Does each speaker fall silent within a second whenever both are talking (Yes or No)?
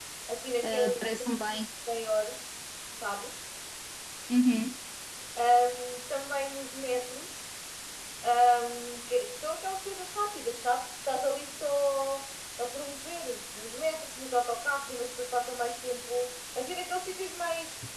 Yes